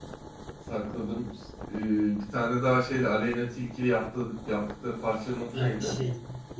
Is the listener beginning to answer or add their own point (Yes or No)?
Yes